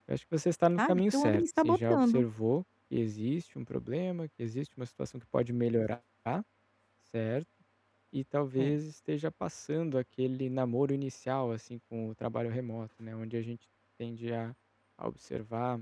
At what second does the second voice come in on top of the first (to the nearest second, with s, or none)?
1 s